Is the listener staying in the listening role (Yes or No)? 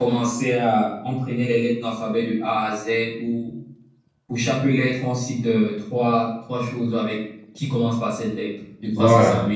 No